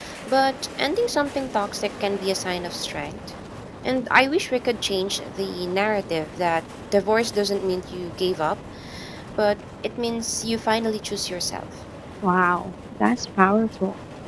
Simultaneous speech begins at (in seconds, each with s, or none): none